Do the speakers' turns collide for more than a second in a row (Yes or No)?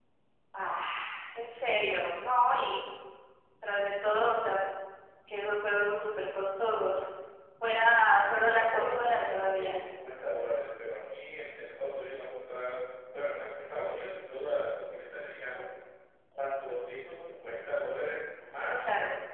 Yes